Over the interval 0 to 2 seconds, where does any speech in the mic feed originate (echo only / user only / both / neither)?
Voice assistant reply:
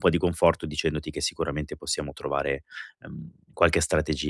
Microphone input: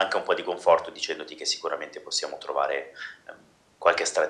echo only